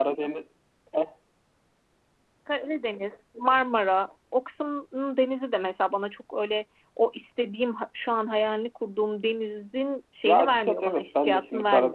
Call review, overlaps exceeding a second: present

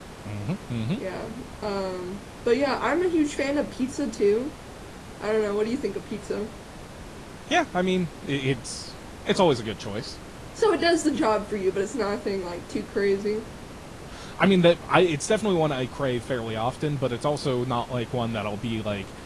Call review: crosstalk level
none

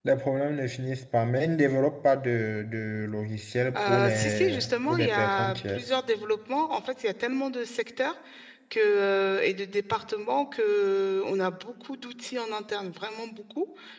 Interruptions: present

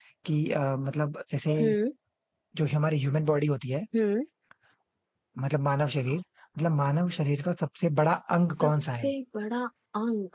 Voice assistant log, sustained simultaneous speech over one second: none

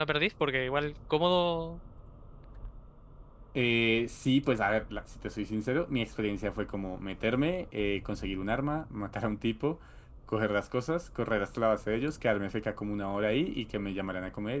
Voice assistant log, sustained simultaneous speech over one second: none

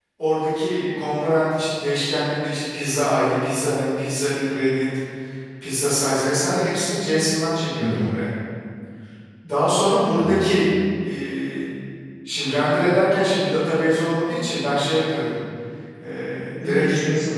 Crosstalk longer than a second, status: none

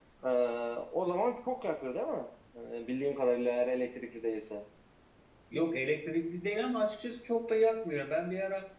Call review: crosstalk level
none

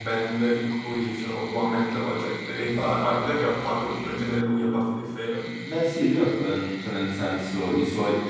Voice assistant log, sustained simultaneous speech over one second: none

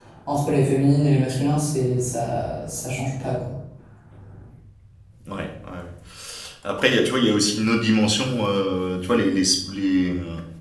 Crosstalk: none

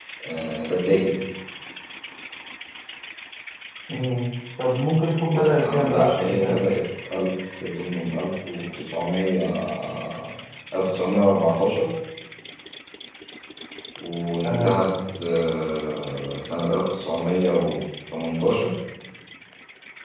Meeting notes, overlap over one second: present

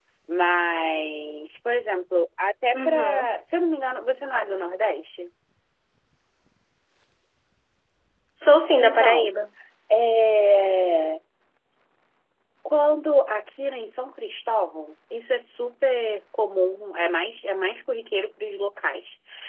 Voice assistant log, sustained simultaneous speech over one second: none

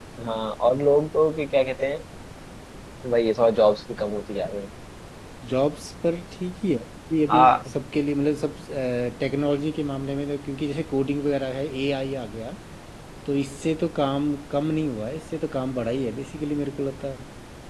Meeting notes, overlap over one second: none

